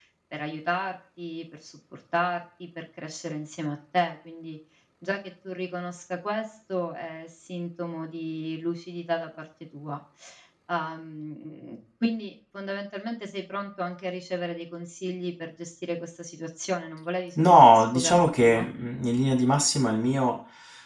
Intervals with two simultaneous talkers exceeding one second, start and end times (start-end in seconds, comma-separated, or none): 17.4-18.7